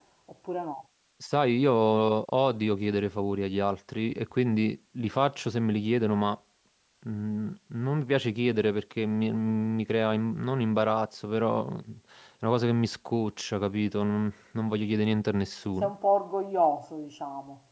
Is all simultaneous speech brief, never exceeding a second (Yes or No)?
Yes